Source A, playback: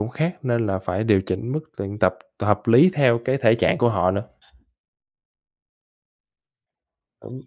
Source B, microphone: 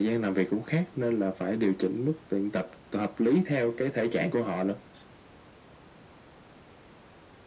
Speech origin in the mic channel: echo only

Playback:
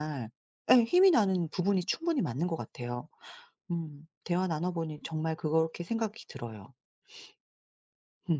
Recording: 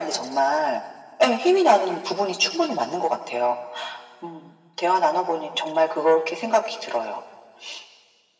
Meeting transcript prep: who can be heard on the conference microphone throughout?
echo only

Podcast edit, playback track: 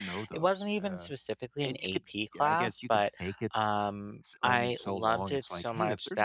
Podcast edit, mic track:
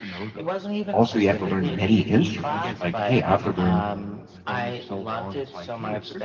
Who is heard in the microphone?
both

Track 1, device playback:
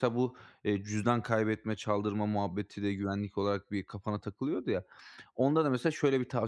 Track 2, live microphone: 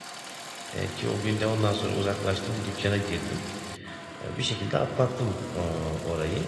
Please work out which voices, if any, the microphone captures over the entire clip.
user only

